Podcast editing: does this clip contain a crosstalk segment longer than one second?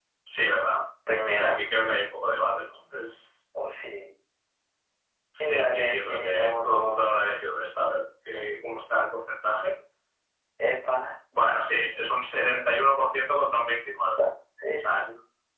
Yes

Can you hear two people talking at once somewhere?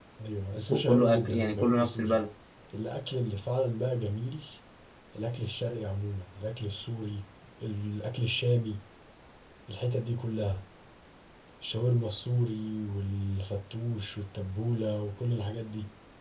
Yes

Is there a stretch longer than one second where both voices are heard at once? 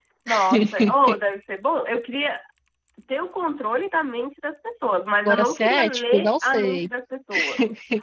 Yes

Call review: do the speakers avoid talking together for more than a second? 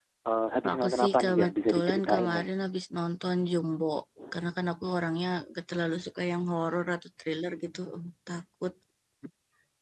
No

